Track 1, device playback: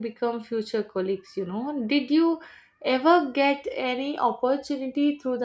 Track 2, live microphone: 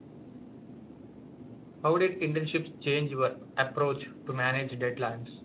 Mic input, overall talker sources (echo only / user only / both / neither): user only